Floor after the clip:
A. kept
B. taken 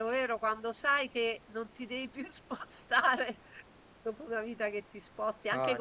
A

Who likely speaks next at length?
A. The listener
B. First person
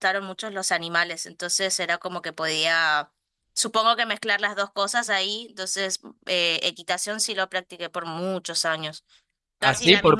A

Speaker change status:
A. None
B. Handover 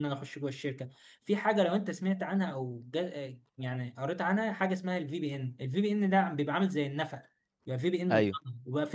A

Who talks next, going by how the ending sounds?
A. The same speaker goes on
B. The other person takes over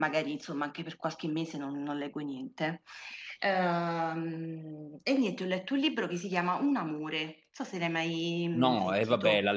B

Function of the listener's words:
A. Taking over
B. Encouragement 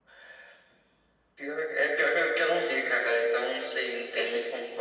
A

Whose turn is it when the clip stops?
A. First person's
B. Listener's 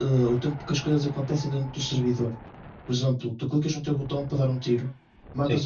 A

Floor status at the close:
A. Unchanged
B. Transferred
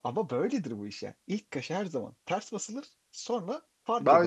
B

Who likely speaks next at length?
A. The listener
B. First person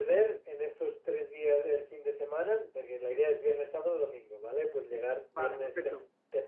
B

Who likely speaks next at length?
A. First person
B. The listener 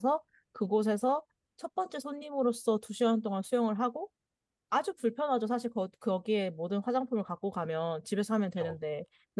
A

